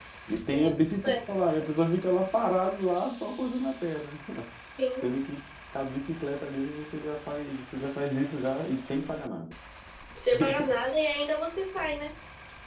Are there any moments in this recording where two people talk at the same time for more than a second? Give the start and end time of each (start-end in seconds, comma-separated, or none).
none